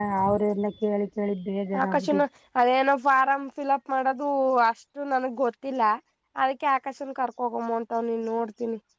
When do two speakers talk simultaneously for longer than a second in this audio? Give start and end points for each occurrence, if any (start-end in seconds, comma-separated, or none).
none